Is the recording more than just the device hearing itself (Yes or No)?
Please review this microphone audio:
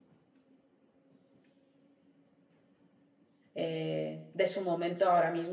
Yes